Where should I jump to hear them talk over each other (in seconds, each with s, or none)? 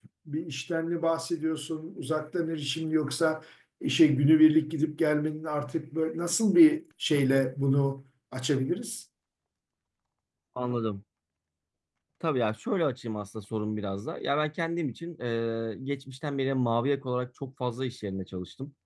none